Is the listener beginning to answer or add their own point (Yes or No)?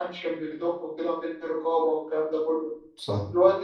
No